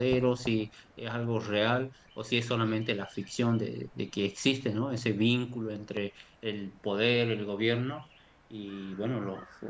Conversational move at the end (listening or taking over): listening